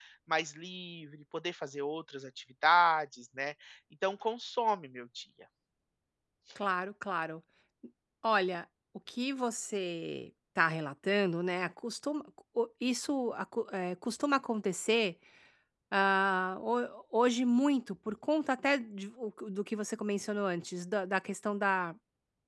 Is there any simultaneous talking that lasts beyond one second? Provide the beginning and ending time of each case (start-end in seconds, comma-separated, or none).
none